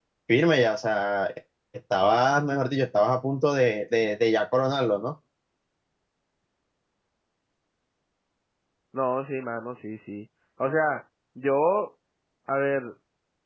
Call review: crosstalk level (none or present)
none